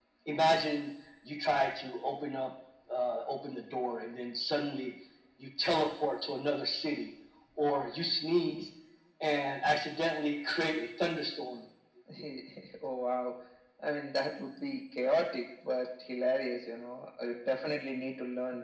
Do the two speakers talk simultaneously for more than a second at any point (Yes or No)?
No